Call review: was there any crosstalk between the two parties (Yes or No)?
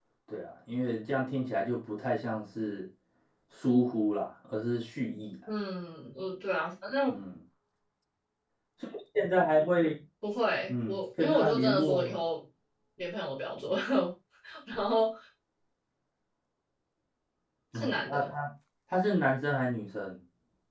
Yes